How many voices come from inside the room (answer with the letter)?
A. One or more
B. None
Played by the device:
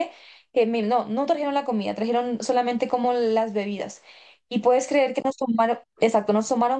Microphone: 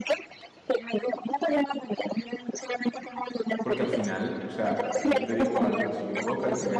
A